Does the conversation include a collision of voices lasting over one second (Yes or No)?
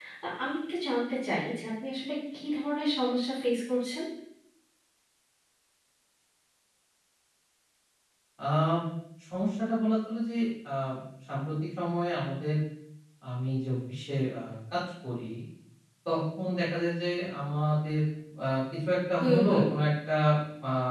No